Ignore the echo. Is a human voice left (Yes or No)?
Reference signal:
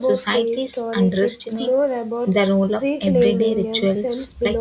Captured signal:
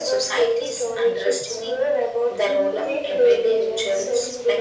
Yes